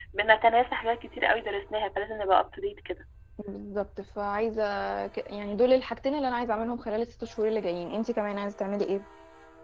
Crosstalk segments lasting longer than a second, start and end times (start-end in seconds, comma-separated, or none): none